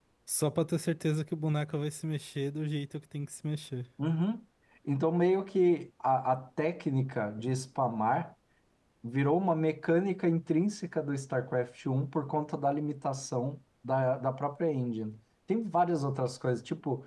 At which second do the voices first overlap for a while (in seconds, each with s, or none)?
none